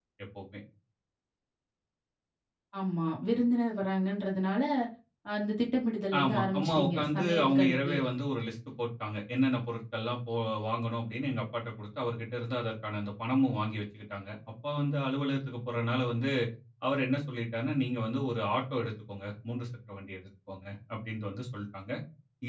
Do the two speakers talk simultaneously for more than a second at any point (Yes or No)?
Yes